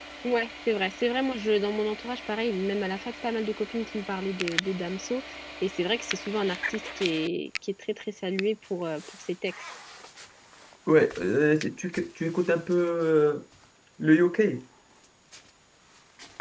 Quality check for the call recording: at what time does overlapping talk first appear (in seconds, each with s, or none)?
none